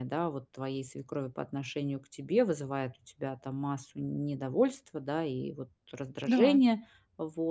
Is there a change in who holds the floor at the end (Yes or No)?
No